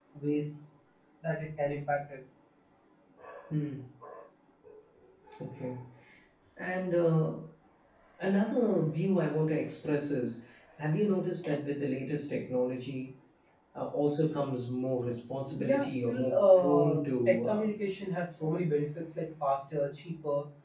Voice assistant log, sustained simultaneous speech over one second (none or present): present